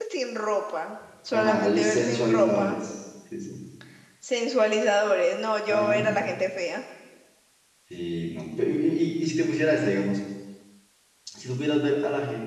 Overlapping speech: Yes, from 1.3 s

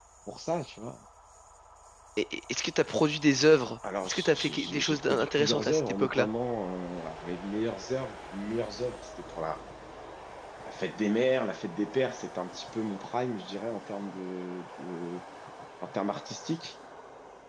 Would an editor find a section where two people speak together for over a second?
Yes, from 3.8 s

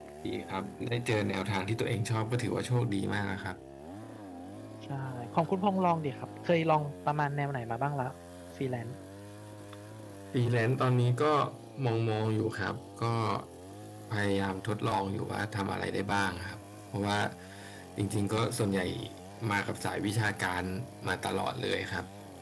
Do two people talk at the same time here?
No

